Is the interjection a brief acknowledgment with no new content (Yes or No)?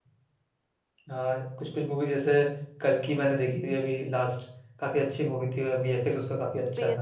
No